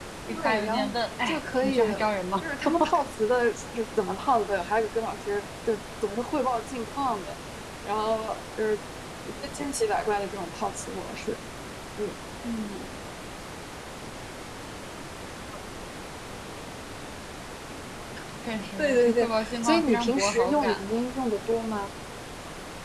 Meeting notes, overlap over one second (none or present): present